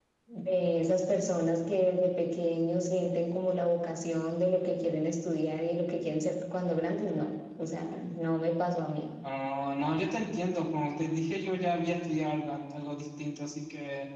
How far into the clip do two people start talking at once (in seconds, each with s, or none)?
none